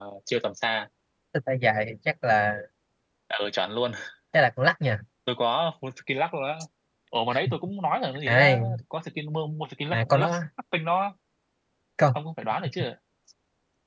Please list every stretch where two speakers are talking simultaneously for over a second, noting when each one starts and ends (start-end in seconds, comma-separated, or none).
none